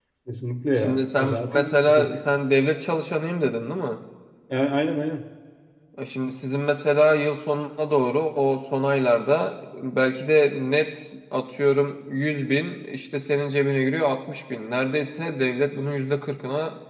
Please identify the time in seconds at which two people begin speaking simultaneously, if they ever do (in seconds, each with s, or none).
0.7 s